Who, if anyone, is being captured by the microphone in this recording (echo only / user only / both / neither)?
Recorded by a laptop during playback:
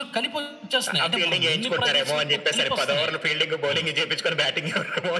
echo only